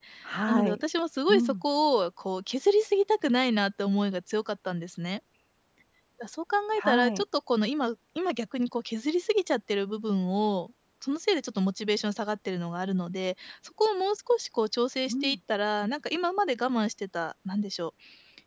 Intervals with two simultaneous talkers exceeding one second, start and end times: none

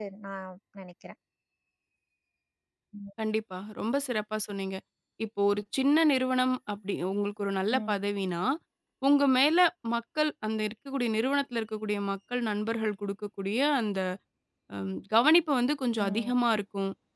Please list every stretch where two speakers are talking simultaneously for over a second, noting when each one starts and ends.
none

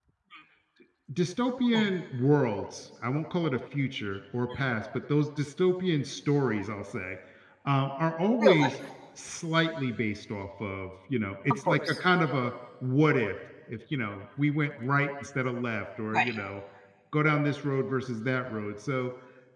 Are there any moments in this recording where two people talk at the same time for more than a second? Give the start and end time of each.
none

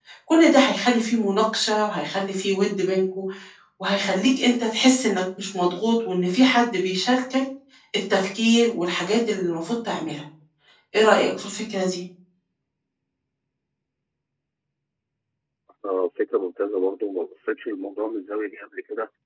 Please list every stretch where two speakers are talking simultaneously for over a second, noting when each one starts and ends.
none

